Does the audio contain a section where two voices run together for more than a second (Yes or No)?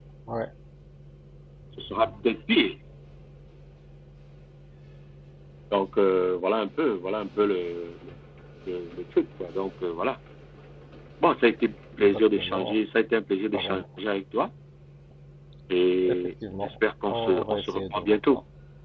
Yes